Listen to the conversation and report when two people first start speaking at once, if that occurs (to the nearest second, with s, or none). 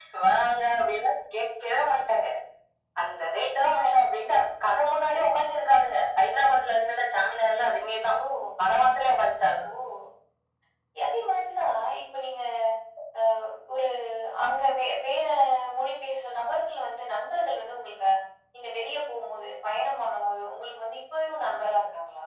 none